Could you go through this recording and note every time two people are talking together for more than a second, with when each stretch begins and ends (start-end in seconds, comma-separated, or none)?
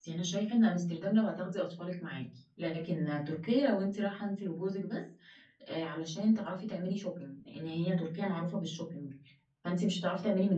none